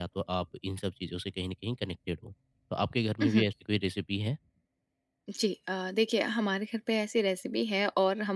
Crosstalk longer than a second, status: none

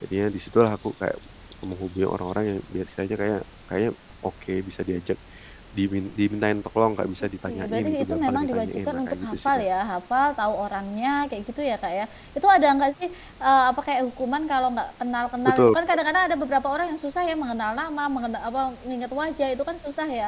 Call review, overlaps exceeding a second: present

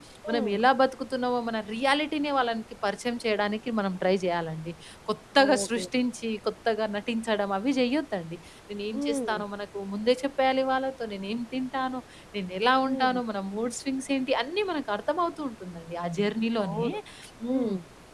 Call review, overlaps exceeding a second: none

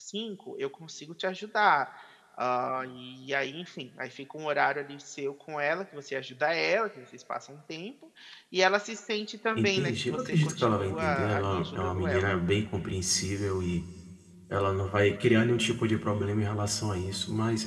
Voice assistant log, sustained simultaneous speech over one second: present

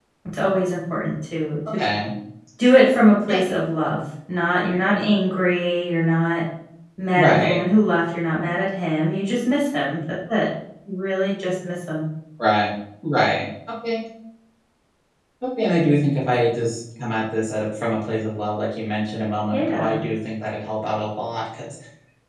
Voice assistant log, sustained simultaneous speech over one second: none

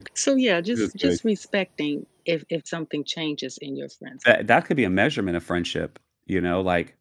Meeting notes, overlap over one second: none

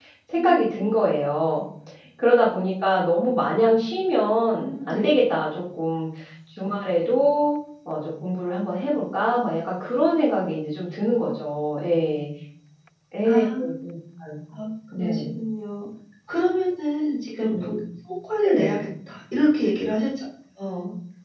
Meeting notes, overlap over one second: none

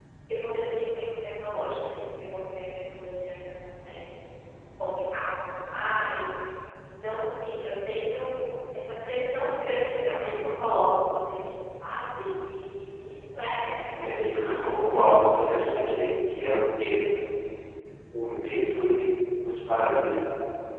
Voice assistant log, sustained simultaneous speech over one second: present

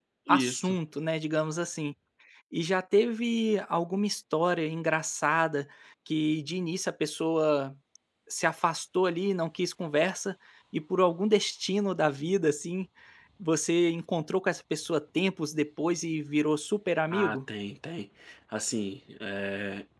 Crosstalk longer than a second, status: none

